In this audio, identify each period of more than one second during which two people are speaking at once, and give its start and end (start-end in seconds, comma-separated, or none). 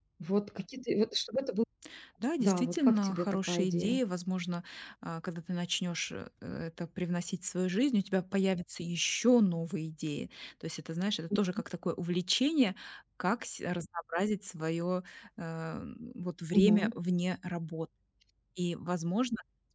2.4-4.0